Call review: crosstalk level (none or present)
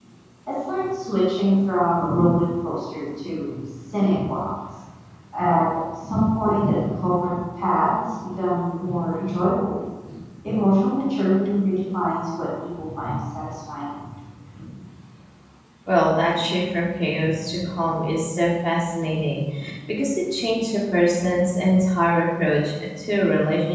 none